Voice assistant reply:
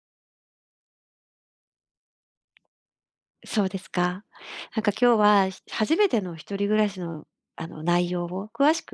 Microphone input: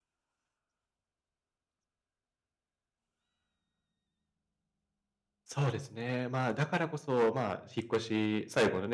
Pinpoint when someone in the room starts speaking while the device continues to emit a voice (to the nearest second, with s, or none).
5 s